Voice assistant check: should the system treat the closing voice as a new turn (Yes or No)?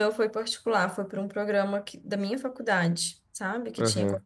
Yes